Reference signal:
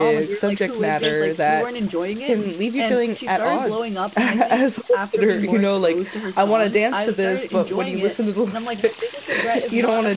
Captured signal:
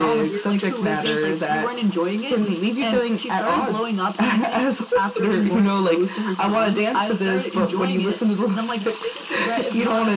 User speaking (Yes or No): No